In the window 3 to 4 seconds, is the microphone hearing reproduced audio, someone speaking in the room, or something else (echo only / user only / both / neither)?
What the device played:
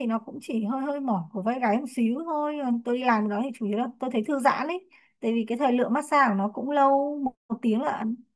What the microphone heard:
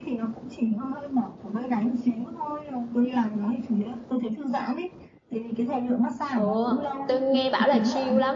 echo only